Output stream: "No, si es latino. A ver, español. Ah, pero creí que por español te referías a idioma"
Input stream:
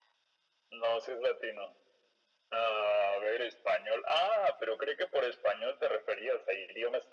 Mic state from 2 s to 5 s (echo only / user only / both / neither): echo only